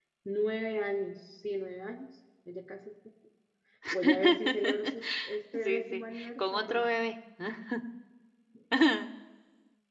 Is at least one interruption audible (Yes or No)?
Yes